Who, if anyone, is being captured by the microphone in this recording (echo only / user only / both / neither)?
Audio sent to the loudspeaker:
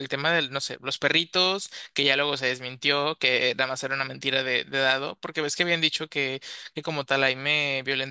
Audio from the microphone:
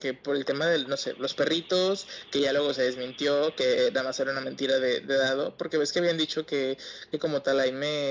echo only